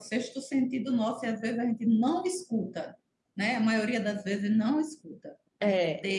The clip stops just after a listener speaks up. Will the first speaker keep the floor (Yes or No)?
Yes